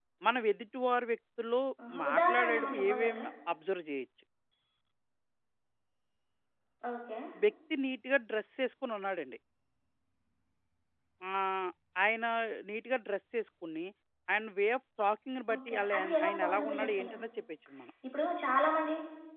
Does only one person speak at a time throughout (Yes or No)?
No